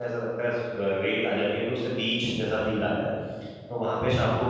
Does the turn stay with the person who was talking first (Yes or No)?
Yes